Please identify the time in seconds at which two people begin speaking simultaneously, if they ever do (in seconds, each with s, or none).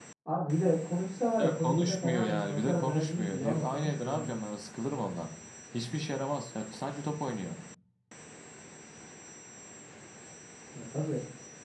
1.4 s